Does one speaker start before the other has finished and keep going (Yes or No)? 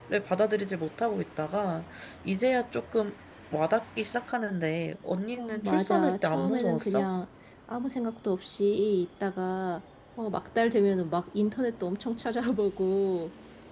Yes